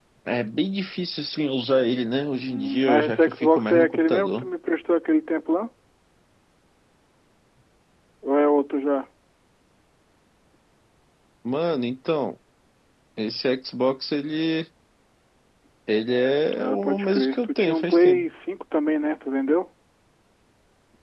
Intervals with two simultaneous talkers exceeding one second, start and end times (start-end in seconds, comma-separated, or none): 2.4-4.5, 16.6-18.3